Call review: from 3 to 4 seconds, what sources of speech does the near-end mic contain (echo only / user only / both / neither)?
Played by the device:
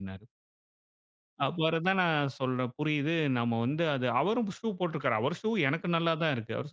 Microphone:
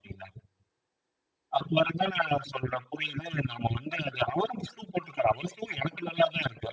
echo only